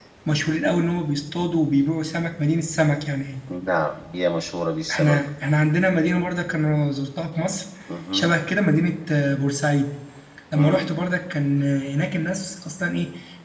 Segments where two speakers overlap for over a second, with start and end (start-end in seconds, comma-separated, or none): none